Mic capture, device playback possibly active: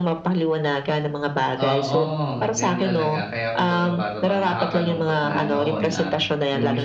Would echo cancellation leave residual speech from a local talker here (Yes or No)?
Yes